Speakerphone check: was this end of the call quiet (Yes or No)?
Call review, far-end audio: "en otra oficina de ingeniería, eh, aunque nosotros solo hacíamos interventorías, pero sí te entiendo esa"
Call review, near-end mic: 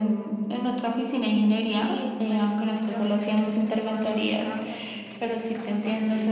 No